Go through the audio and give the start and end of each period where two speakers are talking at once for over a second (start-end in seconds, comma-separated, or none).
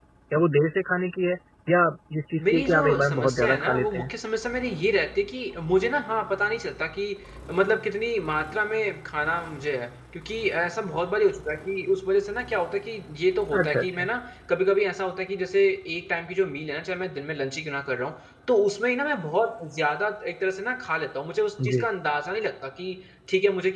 2.4-4.1